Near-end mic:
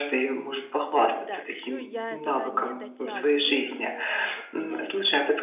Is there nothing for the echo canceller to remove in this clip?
No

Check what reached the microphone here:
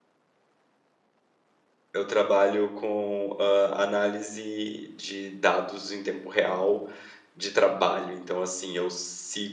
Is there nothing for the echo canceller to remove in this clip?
Yes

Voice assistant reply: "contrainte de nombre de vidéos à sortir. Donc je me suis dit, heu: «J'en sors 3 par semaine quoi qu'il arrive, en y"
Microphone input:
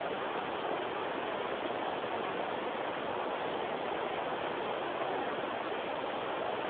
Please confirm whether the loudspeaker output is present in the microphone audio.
No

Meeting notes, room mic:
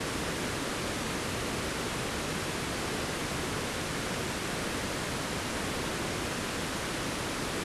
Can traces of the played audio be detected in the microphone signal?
No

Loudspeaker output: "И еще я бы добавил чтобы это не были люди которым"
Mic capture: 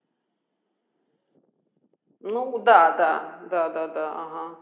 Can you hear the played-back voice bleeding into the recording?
No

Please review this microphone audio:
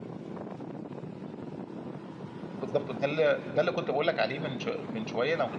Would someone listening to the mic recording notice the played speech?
No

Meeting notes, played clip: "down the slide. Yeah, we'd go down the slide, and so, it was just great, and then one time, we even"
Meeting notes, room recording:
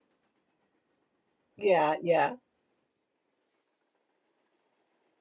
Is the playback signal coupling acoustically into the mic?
No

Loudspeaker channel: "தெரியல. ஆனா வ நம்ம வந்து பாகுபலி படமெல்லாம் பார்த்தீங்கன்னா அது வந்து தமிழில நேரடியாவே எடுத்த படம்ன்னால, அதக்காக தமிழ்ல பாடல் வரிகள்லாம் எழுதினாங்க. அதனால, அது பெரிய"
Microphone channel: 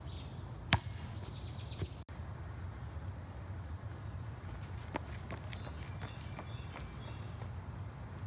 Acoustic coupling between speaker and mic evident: No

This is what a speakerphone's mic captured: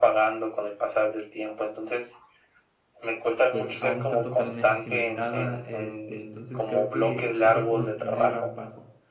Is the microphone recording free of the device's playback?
No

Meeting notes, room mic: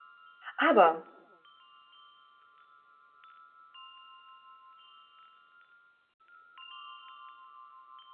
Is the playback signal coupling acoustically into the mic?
No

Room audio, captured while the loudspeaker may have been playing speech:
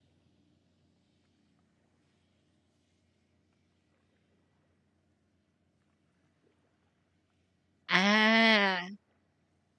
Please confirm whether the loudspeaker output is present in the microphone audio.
No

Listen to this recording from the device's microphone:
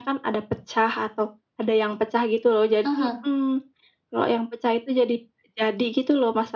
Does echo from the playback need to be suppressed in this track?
Yes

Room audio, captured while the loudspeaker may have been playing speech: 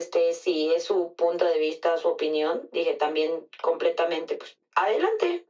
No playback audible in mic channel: No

